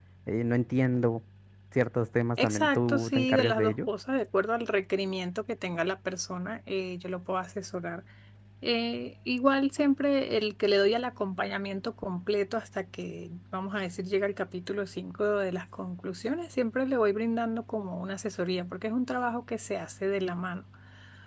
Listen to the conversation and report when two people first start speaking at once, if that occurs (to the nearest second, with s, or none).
2 s